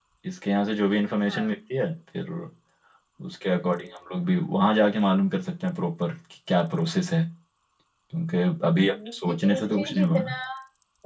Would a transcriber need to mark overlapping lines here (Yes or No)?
Yes